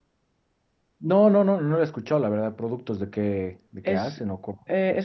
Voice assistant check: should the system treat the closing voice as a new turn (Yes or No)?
Yes